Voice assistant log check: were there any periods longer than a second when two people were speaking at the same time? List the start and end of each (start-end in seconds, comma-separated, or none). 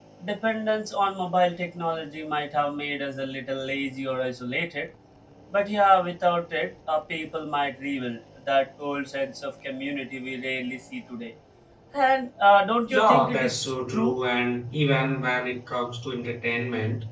12.9-14.2